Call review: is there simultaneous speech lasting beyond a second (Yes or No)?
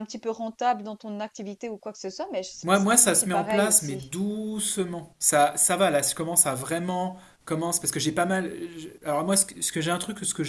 Yes